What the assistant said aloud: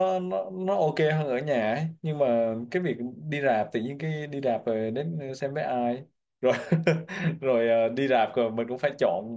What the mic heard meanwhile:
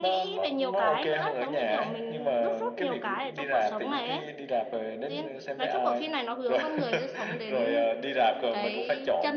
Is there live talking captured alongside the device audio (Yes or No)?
Yes